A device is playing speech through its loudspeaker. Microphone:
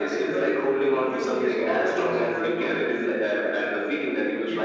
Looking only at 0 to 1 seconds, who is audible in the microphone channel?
echo only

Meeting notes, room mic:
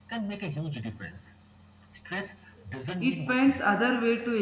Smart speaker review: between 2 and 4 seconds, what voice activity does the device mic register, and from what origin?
both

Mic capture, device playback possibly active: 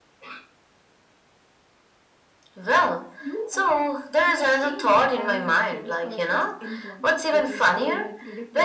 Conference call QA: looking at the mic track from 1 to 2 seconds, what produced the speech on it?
neither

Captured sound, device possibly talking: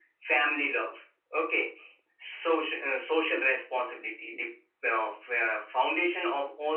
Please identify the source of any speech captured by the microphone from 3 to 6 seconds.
echo only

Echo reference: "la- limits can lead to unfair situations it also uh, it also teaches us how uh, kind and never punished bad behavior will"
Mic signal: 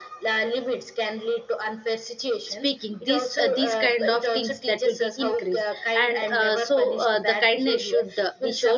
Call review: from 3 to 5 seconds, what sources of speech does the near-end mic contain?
both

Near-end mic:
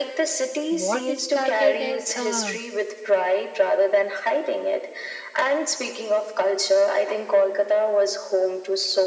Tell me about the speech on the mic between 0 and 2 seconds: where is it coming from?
both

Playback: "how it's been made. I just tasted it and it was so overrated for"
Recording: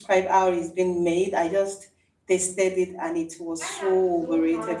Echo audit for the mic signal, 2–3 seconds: echo only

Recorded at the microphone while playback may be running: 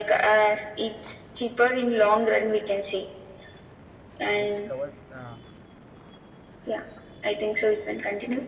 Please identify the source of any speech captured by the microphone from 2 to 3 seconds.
echo only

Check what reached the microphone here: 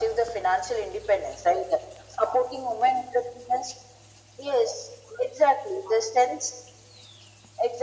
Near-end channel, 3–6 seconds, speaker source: echo only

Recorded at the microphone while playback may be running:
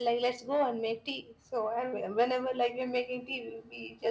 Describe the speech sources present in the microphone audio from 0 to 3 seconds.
echo only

